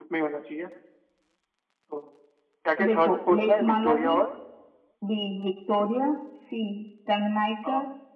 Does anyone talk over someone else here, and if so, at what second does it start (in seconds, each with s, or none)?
2.8 s